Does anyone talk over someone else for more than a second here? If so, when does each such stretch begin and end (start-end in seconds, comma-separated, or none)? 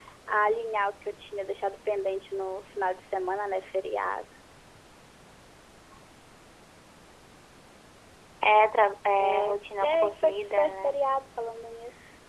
9.2-11.0